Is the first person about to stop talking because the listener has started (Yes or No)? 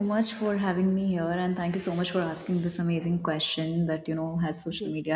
No